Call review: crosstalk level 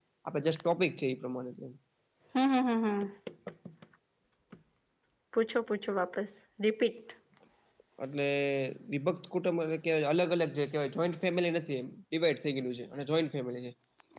none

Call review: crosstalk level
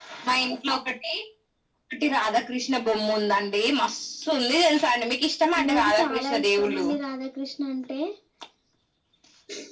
present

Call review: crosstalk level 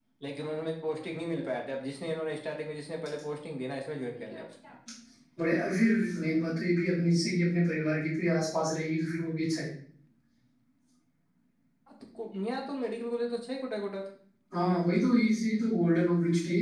none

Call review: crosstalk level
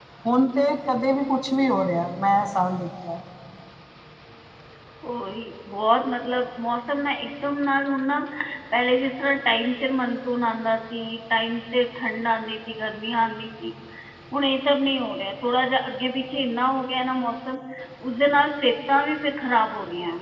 none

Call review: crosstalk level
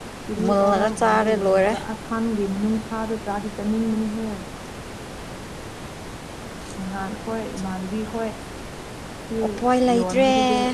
present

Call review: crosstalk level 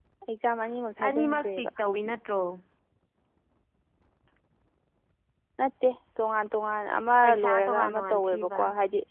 present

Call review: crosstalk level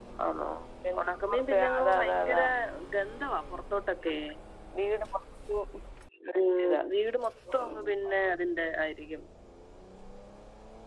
present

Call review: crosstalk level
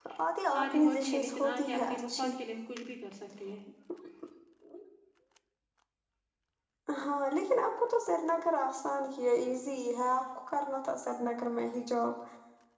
present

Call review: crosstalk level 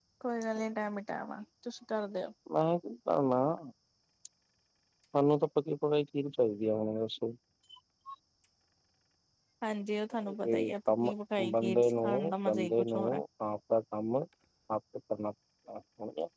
present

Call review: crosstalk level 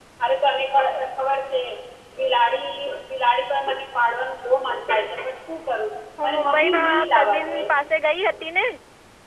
present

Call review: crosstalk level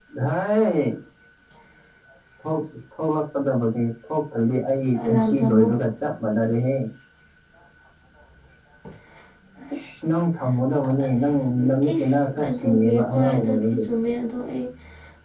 present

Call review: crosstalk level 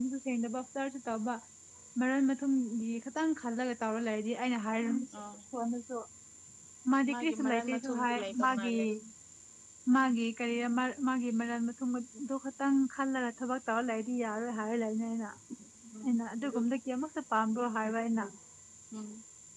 present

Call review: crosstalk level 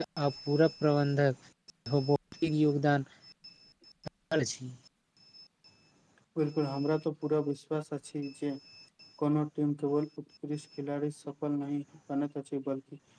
none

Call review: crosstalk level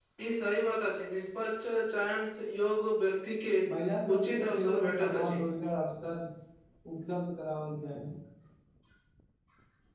present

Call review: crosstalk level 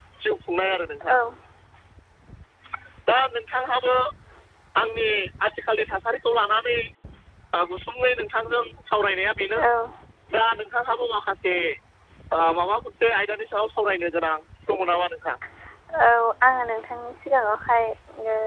none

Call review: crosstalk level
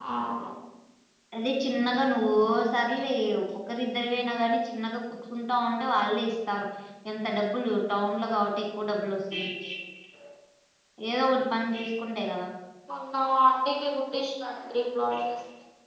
none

